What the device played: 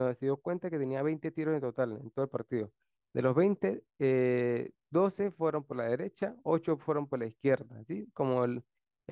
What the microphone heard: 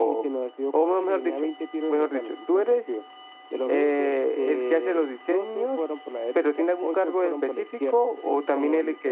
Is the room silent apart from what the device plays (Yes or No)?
No